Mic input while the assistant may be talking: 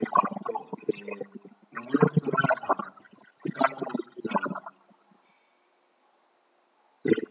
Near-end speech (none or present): none